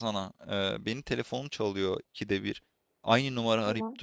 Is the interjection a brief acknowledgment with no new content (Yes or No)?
Yes